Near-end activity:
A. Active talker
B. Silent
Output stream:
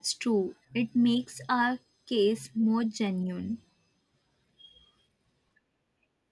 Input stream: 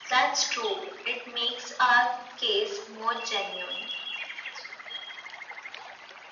B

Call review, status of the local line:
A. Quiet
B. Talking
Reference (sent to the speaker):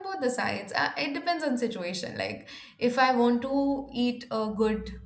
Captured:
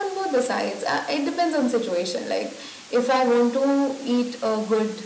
A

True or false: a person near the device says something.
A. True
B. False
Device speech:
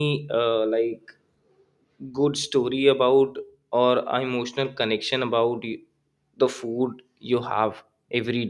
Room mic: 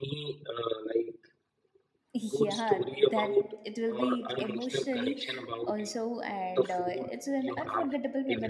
A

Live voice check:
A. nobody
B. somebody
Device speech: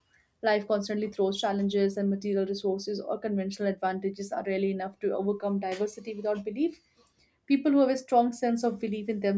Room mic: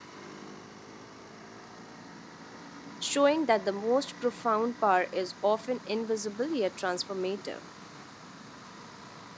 B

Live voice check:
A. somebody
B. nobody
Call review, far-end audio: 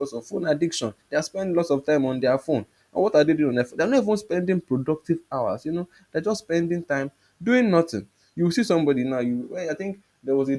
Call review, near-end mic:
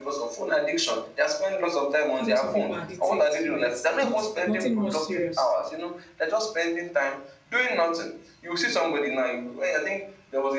A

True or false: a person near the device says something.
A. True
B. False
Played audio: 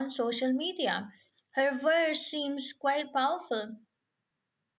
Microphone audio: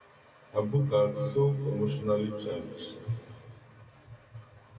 A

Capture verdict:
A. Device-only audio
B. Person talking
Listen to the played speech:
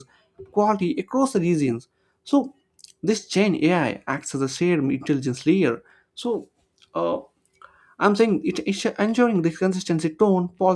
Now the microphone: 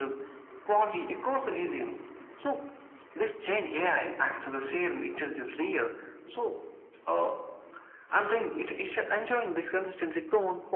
A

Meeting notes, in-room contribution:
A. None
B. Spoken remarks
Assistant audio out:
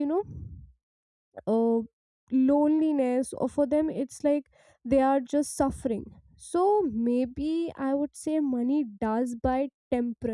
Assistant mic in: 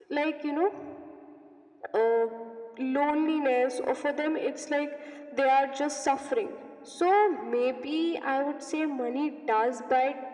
A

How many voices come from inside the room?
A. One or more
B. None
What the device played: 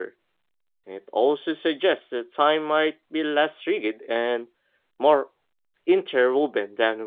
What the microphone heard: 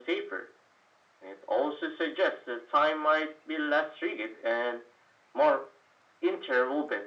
B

